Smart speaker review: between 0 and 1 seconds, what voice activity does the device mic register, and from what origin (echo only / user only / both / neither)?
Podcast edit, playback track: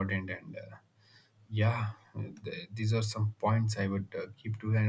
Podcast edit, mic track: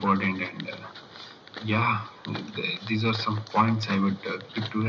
echo only